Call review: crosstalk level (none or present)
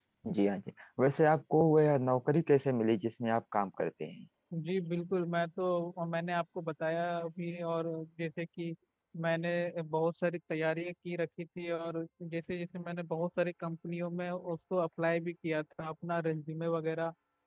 none